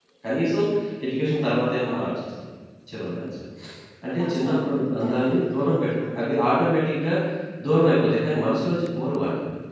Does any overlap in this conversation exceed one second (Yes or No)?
Yes